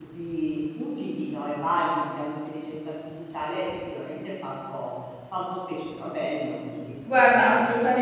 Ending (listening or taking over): taking over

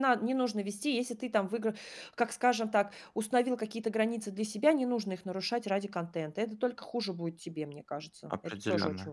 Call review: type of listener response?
taking over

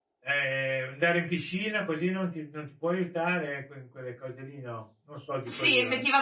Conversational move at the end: taking over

